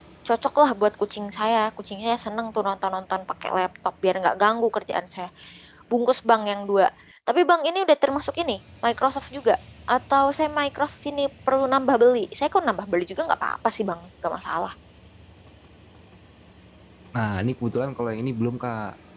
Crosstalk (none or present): none